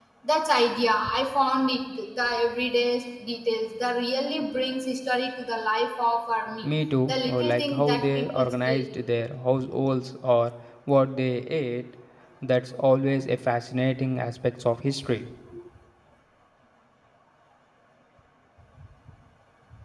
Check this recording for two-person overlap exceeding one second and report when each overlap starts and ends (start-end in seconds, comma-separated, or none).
7.1-8.8